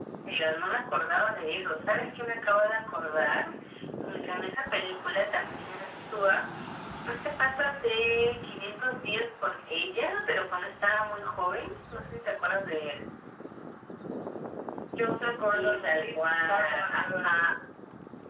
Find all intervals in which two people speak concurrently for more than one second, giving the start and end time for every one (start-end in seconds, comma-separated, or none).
15.5-17.5